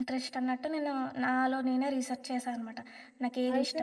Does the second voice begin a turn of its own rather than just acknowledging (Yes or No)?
Yes